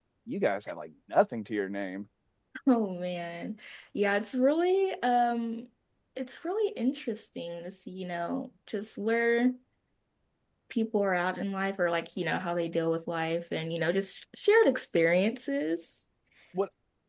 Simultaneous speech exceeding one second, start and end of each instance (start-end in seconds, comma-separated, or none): none